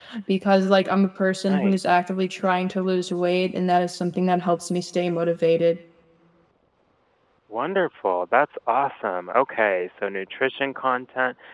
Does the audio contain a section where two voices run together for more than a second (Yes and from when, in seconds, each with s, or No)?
No